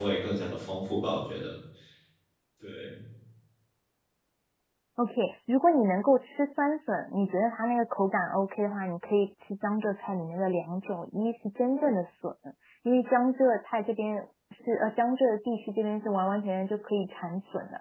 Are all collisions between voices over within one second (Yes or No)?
Yes